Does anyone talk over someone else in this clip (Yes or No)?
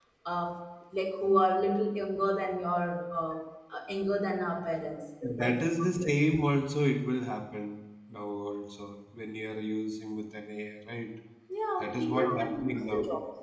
Yes